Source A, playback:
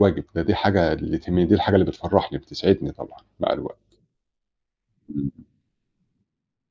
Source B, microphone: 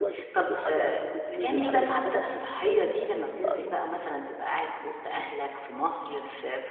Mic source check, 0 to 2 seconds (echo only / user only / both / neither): both